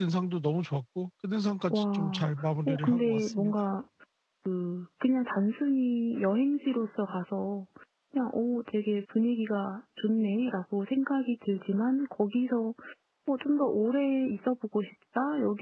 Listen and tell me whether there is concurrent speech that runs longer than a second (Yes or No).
Yes